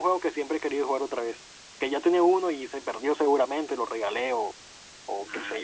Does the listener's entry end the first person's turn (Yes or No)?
Yes